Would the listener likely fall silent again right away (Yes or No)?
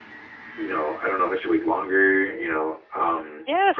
No